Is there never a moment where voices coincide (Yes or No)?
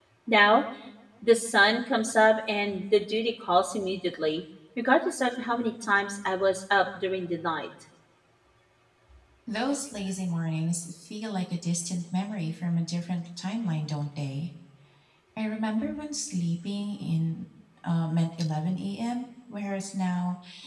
Yes